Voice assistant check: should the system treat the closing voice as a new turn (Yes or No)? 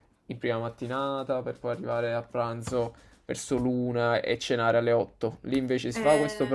No